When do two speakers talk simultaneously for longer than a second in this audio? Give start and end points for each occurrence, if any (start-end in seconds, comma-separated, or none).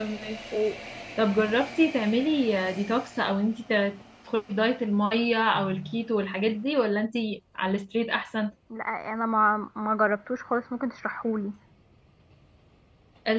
none